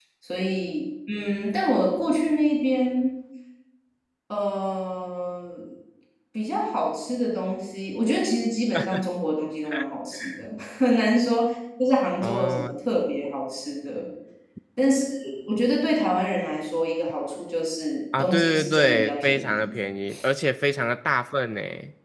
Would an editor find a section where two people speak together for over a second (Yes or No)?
Yes